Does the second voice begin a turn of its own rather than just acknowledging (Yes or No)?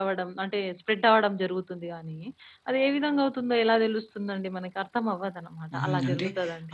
Yes